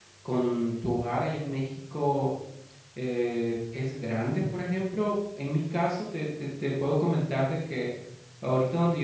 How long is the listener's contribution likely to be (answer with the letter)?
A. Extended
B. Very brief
B